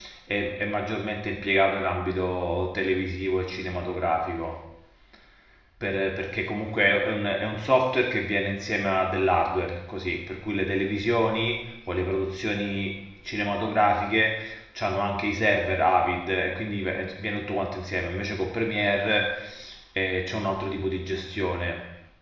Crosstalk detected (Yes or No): No